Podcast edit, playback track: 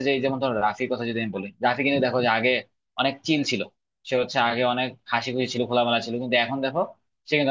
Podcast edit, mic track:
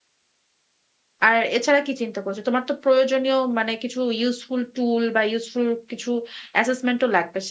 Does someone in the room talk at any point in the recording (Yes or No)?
Yes